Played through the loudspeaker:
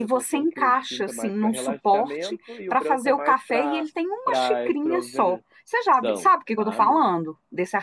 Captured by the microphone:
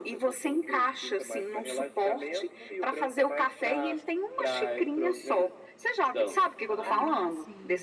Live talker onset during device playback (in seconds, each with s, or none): 6.8 s